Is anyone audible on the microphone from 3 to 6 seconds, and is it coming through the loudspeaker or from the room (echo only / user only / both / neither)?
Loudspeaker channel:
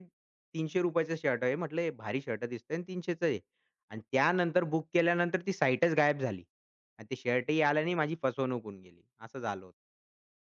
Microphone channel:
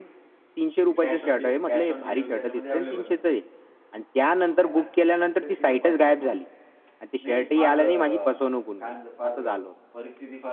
both